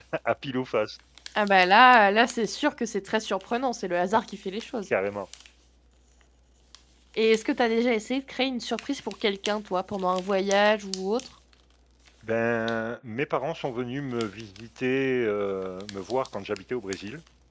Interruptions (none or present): none